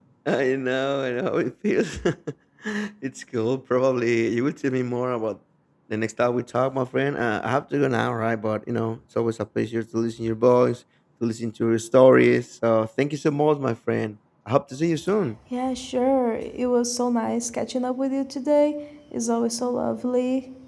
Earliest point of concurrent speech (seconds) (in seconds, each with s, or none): none